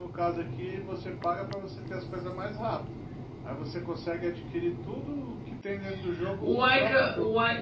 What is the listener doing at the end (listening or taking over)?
taking over